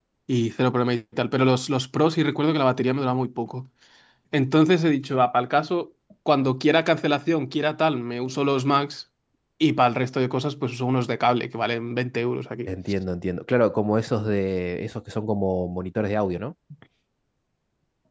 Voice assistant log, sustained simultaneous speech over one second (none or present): none